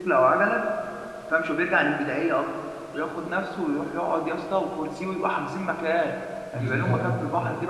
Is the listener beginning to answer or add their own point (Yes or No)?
No